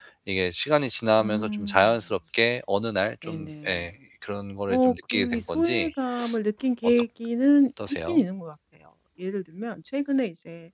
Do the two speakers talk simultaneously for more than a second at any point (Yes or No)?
Yes